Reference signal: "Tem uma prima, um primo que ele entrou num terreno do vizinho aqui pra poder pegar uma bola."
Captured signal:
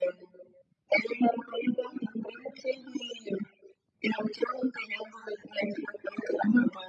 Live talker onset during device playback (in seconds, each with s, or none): none